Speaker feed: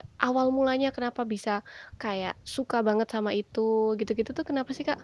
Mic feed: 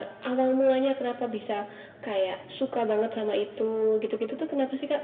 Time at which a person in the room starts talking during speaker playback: none

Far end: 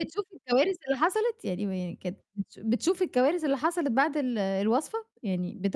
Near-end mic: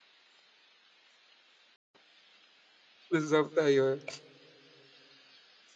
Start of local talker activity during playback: 3 s

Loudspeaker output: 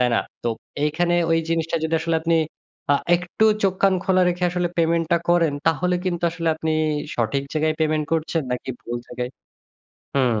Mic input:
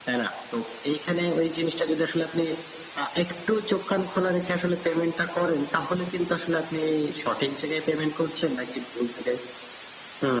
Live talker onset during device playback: none

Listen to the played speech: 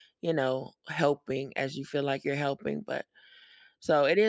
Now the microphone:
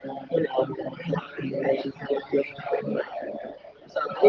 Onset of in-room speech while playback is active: none

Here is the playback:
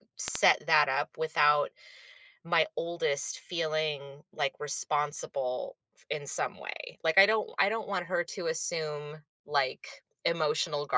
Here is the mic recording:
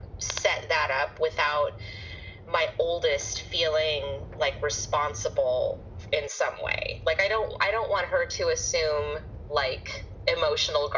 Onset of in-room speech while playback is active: none

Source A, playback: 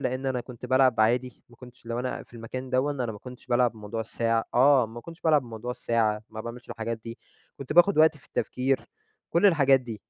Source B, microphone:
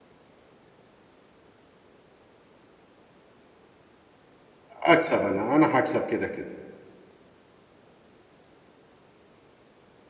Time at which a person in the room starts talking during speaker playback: 5 s

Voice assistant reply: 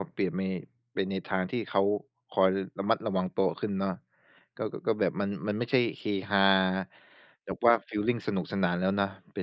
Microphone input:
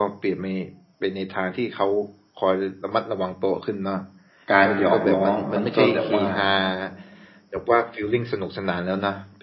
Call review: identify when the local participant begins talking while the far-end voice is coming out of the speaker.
5 s

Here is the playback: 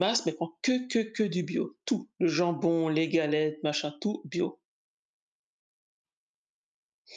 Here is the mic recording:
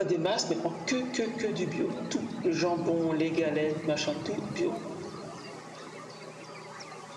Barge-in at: none

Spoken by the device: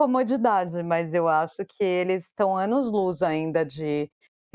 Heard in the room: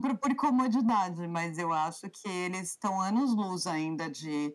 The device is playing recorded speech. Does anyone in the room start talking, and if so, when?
none

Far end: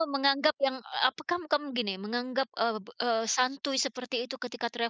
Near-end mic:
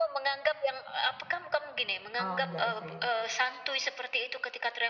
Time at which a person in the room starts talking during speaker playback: 2 s

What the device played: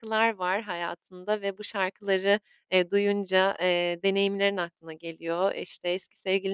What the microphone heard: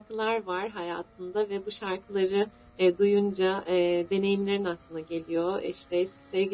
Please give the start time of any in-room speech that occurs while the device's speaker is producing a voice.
none

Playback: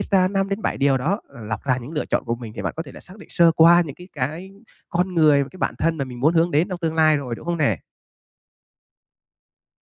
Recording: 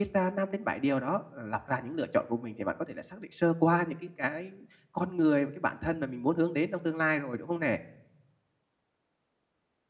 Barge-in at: none

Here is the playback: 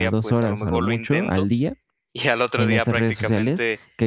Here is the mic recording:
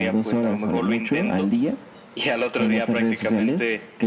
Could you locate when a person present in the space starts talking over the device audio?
none

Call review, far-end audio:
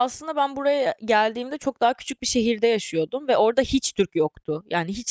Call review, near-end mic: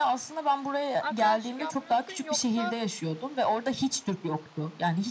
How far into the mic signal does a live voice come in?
1 s

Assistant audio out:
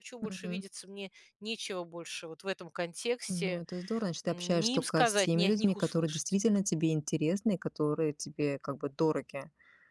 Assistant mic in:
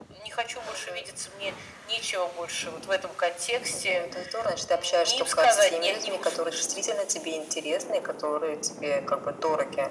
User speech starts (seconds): none

